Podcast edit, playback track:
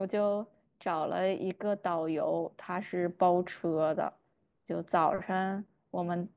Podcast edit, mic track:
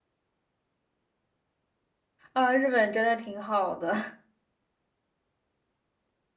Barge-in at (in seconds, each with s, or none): 2.3 s